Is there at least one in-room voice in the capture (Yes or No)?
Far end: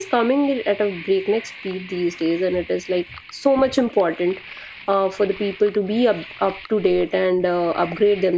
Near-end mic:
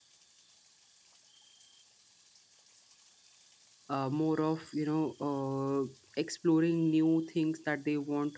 Yes